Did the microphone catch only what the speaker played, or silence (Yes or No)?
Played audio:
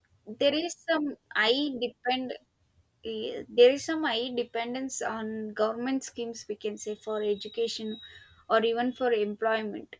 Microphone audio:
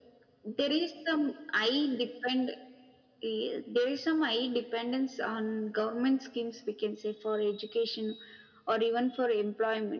Yes